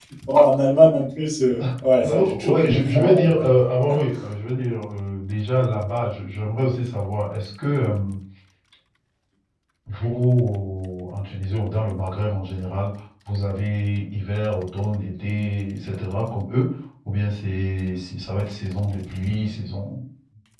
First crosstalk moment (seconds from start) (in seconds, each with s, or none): 2.0 s